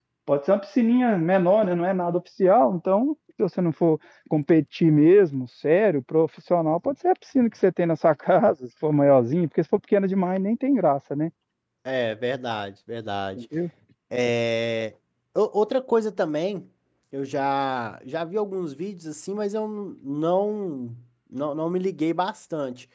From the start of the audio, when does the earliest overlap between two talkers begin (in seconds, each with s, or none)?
none